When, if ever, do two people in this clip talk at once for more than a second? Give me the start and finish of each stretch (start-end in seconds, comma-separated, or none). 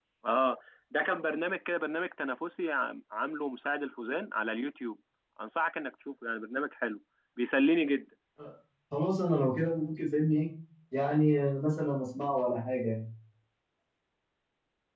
none